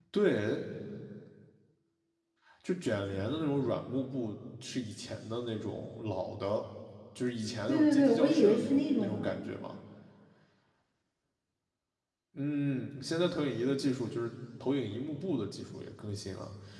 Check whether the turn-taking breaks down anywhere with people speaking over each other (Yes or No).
Yes